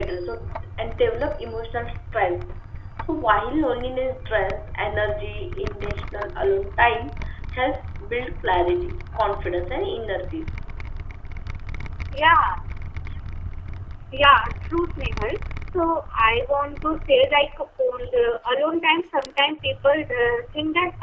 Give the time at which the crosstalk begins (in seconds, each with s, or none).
none